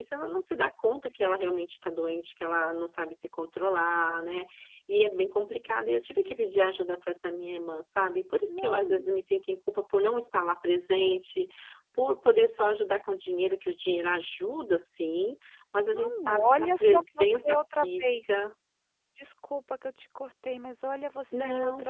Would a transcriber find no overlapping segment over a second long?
No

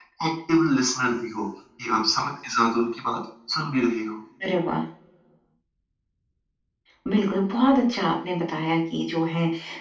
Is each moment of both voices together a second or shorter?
Yes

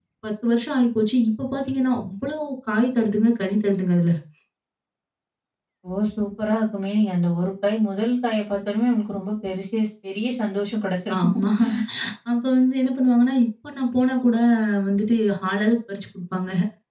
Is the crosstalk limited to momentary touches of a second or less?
Yes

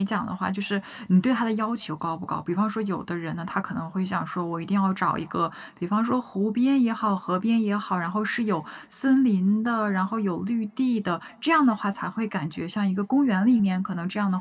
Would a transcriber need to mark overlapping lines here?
No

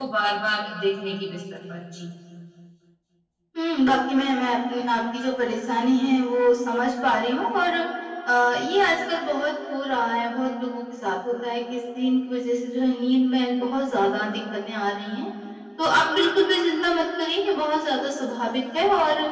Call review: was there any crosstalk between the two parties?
No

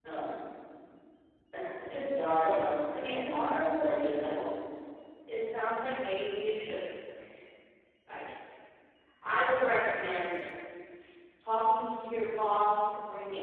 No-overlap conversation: No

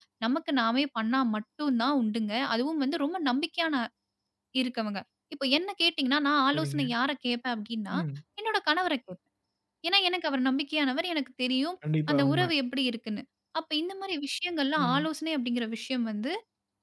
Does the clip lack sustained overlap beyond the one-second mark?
Yes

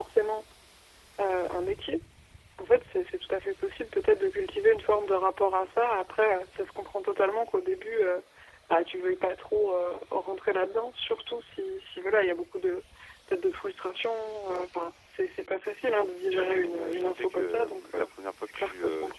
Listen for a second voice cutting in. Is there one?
Yes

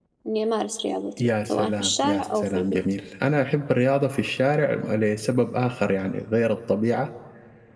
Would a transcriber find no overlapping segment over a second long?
No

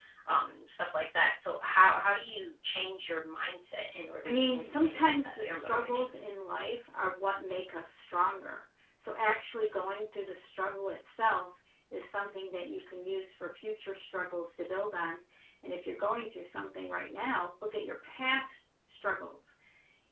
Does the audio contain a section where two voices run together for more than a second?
Yes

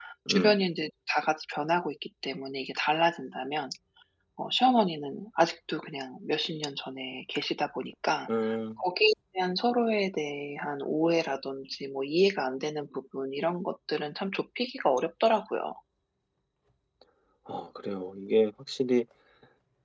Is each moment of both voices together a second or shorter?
Yes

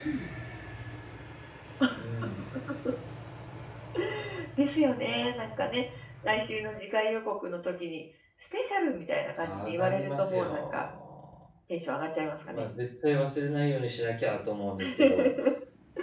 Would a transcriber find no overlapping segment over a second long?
No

